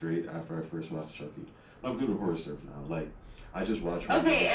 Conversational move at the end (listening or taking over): taking over